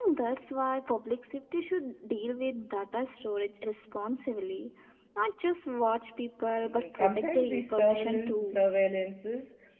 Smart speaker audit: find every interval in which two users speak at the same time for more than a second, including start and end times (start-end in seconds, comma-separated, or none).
6.6-8.7